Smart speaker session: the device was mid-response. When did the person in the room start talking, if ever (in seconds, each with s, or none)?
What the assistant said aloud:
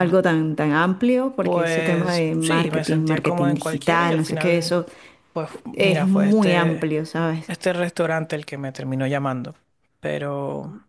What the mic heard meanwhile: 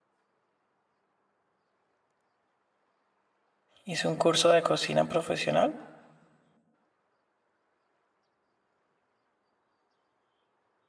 3.8 s